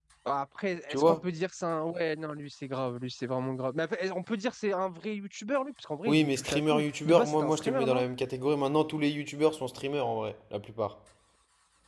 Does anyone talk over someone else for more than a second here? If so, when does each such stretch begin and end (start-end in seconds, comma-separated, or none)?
6.1-8.0